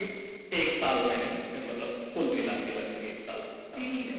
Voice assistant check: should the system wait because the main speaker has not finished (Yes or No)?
No